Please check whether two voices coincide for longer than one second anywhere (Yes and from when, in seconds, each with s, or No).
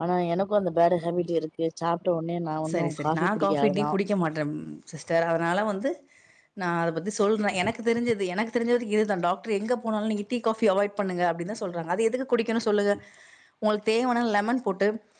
Yes, from 2.7 s